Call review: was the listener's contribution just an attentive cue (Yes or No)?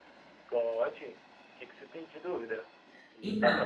Yes